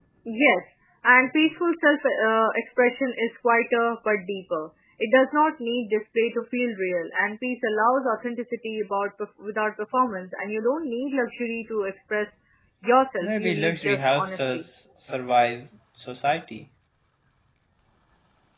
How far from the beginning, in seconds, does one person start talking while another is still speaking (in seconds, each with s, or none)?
13.2 s